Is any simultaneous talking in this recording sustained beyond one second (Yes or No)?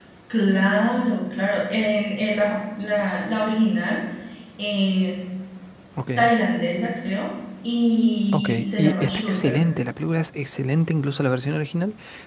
Yes